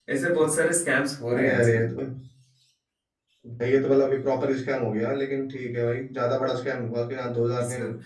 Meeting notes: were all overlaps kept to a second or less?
Yes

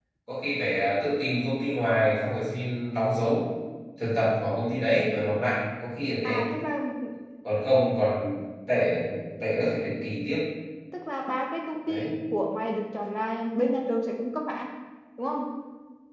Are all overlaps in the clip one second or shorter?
Yes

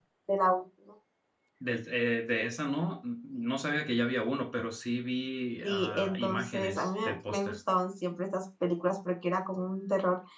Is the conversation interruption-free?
No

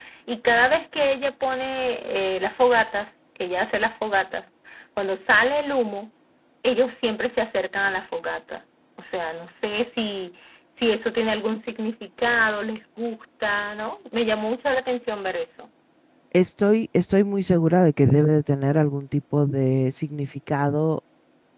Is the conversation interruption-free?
Yes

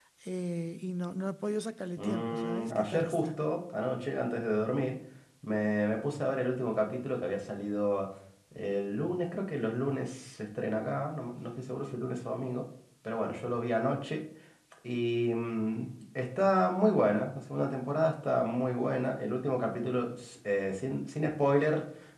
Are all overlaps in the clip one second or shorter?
No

